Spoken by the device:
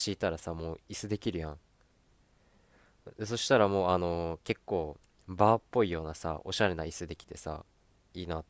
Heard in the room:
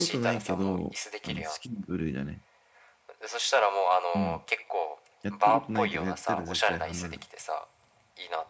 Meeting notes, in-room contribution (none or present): present